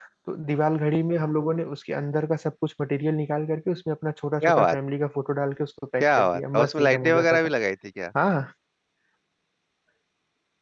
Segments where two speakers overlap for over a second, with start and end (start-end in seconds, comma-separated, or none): 6.0-7.5